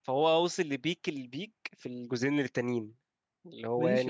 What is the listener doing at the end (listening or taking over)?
taking over